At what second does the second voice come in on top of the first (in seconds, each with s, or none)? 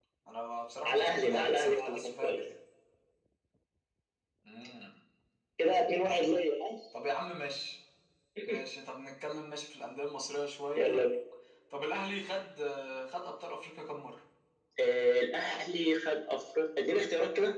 0.9 s